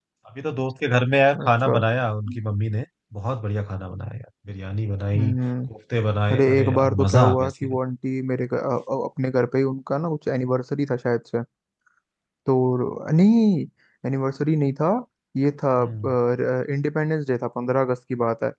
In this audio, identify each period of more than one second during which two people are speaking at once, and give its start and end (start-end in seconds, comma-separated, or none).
6.3-7.8